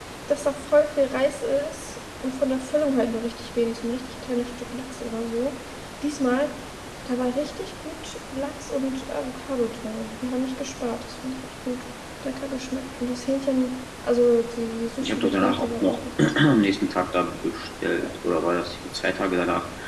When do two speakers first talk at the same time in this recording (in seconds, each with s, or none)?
15.0 s